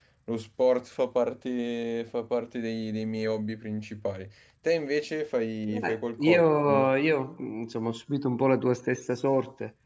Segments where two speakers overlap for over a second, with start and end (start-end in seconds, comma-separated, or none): 5.7-6.9